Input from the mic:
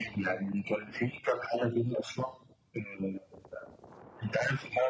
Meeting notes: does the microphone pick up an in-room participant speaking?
No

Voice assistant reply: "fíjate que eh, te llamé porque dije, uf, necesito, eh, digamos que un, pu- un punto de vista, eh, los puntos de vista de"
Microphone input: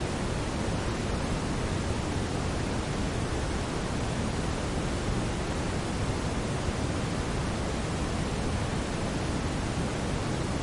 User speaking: No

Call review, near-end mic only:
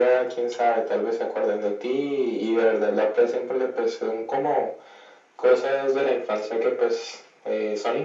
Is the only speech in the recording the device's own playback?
Yes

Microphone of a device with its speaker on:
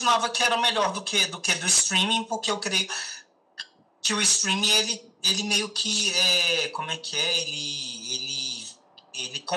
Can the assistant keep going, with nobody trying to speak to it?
Yes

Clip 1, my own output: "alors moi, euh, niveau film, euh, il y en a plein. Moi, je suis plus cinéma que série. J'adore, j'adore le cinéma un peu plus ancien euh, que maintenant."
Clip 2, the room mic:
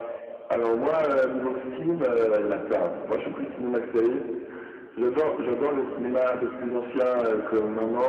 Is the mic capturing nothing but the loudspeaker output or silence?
Yes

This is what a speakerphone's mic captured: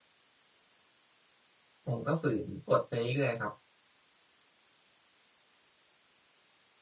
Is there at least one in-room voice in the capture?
Yes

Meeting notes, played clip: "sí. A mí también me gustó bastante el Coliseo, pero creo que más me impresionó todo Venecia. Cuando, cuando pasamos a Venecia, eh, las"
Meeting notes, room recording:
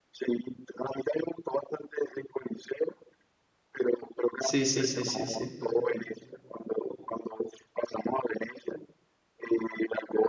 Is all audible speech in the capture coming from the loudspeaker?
No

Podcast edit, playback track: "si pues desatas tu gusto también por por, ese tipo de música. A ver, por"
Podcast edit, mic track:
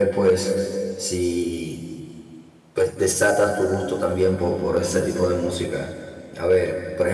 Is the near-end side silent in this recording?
Yes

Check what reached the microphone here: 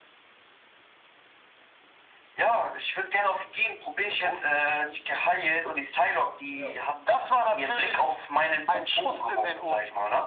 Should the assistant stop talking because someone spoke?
Yes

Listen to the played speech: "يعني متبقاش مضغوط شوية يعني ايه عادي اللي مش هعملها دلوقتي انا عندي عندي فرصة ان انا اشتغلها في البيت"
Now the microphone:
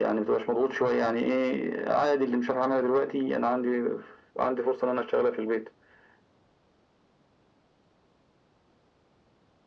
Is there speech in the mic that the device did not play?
No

